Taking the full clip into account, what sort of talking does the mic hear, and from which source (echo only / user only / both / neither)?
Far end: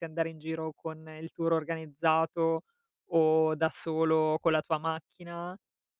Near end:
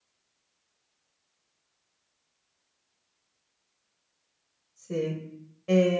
user only